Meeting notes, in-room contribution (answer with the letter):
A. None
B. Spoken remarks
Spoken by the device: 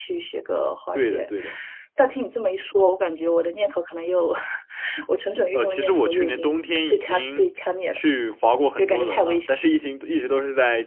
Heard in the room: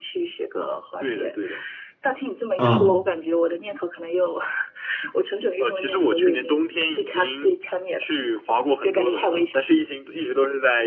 B